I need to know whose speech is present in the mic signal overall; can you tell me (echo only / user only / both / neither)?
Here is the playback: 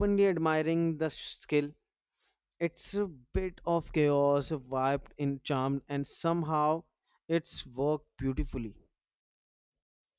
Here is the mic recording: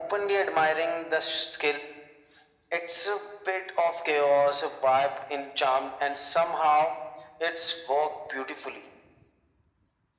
echo only